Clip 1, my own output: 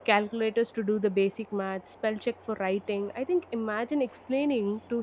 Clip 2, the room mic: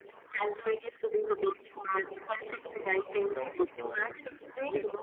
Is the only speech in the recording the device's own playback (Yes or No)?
No